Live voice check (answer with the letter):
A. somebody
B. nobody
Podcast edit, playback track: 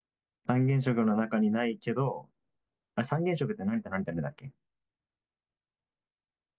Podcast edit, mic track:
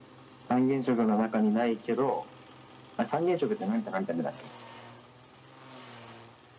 B